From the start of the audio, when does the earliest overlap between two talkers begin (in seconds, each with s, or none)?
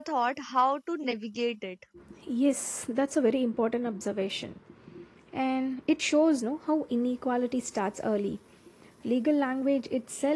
none